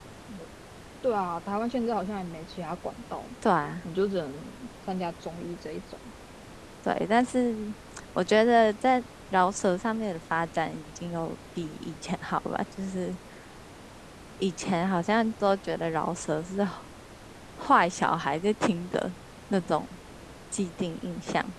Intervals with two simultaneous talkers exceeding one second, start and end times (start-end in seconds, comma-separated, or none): none